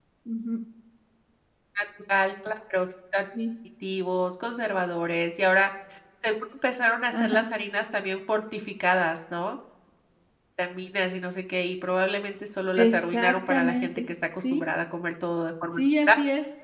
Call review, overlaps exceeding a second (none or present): present